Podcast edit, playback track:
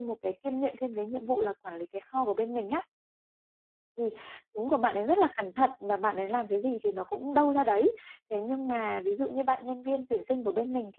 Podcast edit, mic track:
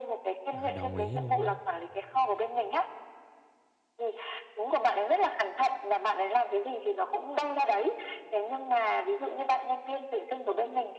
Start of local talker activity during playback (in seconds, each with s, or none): 0.5 s